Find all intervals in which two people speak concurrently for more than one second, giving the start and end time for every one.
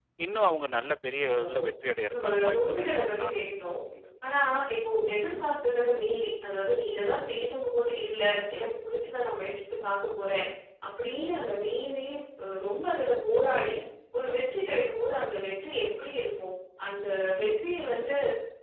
2.1-3.5

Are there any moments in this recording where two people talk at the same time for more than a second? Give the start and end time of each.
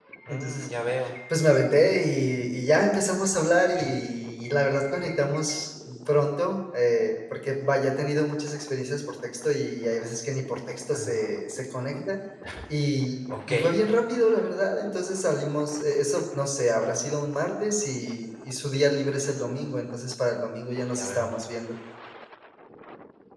none

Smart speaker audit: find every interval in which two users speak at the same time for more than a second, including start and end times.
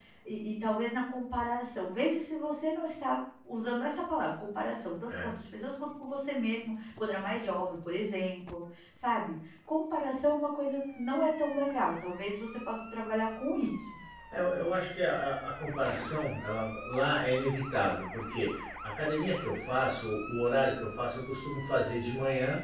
none

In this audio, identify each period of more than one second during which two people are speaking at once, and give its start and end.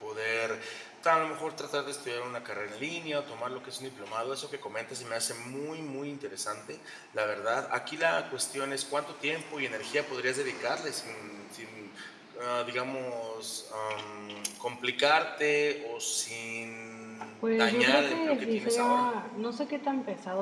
17.4-19.1

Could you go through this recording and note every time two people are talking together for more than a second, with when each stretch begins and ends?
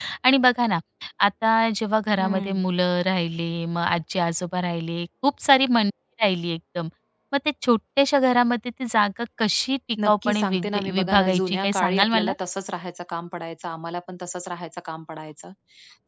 10.1-12.3

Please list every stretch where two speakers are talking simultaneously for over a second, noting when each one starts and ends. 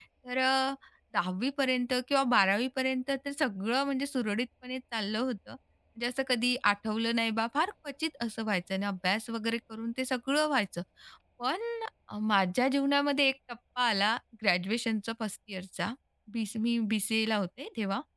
none

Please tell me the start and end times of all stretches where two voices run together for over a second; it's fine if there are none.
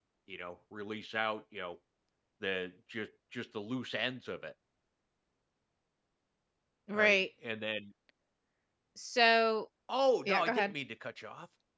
none

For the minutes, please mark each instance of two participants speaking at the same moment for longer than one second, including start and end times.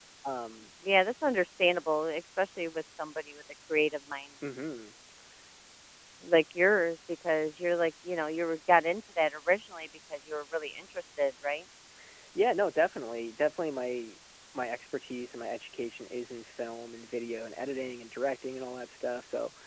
none

